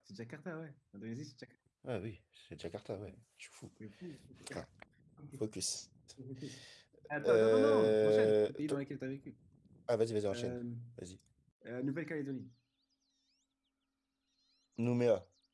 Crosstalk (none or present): present